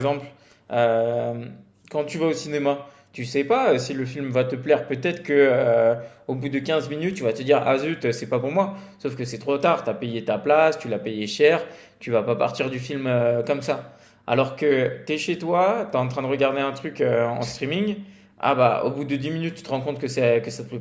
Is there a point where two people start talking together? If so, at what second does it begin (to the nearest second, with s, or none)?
none